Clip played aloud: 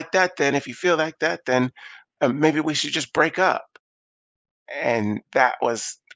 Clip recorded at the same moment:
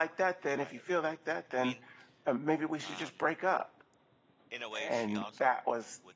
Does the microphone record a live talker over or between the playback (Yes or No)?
Yes